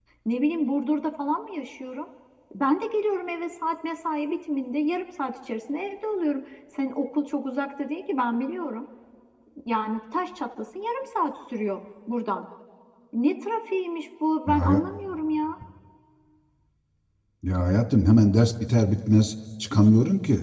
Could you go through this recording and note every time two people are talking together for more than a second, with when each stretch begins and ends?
none

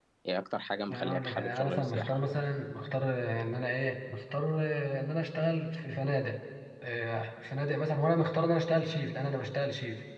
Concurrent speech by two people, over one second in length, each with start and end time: 0.9-2.2

